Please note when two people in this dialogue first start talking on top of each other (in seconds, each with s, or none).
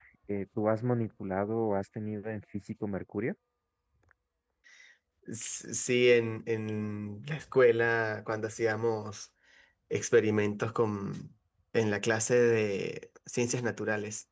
none